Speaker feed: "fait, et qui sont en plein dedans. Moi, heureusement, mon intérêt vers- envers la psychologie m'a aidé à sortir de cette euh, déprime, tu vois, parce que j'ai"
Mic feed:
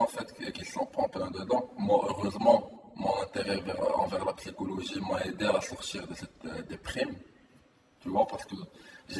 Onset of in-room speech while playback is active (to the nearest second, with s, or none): none